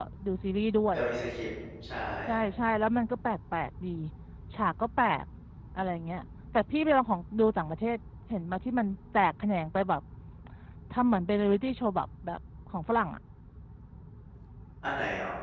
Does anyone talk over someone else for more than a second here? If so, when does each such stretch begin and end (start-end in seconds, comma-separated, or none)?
none